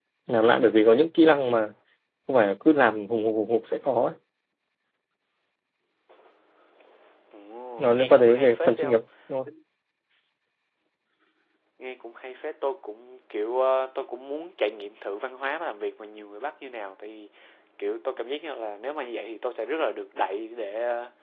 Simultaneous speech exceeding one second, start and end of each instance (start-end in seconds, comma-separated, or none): 7.8-9.0